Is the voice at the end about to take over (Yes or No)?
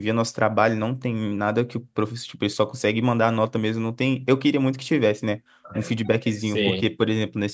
No